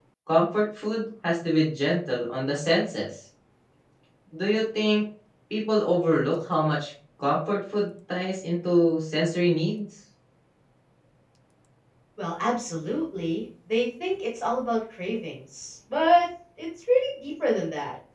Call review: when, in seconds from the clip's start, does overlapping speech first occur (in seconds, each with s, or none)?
none